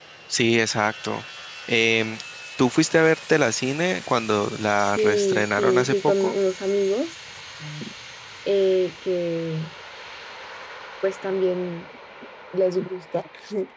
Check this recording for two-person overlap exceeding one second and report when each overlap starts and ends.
4.8-6.3

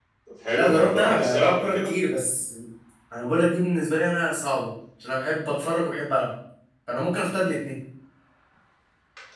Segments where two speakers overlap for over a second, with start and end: 0.6-1.9

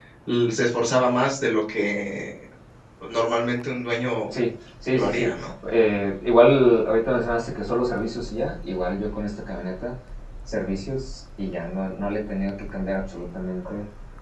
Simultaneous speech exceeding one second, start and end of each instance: none

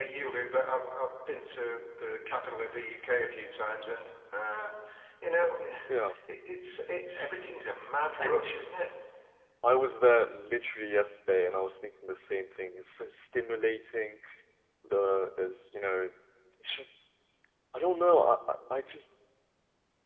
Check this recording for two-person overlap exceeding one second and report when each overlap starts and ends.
none

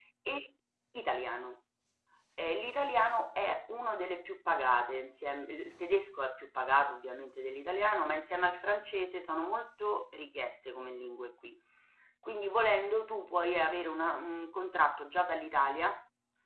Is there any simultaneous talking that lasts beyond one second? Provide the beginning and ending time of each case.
none

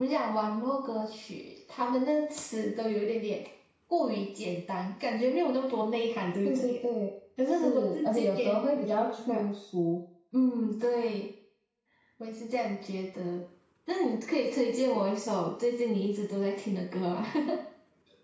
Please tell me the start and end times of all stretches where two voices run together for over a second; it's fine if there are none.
7.5-9.5

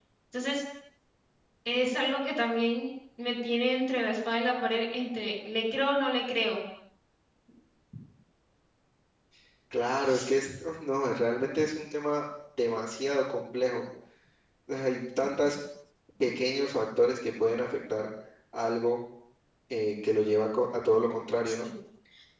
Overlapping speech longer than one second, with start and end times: none

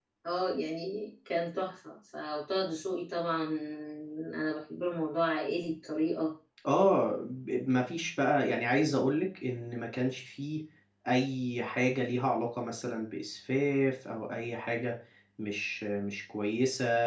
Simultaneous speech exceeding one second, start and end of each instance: none

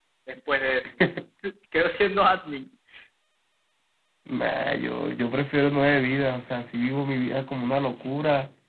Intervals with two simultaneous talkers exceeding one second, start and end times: none

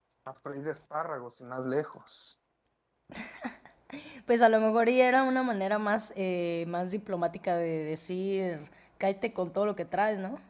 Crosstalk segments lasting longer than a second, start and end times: none

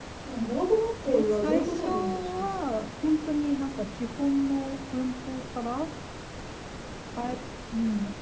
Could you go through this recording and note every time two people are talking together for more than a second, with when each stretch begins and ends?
1.1-2.9

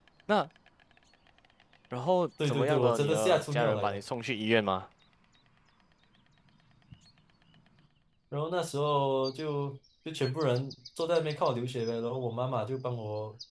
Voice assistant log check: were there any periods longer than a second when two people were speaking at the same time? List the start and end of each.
2.5-4.0

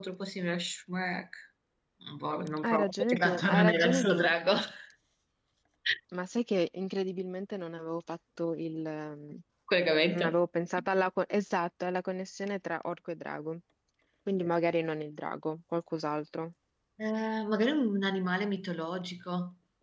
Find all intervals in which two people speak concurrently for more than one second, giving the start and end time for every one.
2.6-4.3

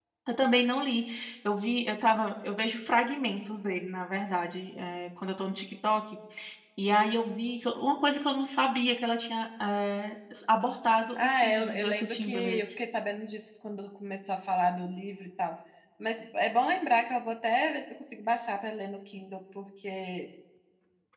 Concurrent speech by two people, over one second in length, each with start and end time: 11.2-12.6

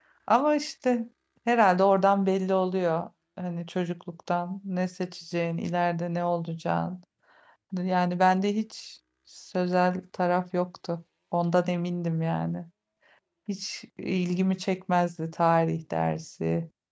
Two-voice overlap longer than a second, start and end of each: none

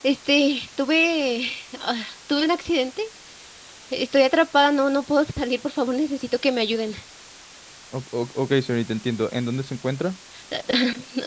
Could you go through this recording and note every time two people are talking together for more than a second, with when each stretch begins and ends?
none

